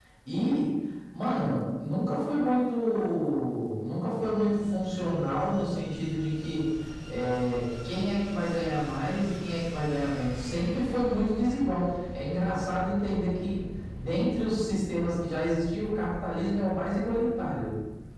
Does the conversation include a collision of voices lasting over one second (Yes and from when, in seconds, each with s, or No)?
No